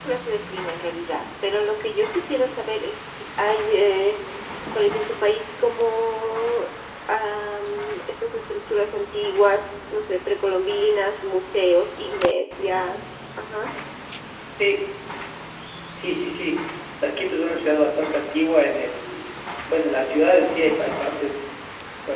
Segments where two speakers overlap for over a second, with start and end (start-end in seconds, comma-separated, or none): none